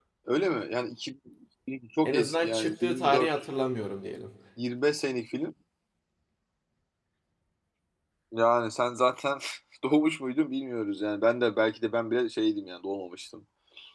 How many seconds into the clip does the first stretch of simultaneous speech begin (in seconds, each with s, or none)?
2.0 s